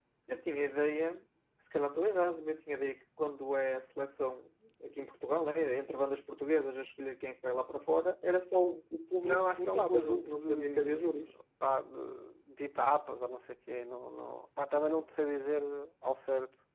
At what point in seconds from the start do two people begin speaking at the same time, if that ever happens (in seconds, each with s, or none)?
9.2 s